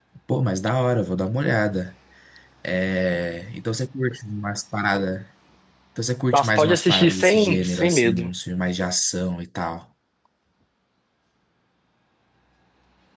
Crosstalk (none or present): present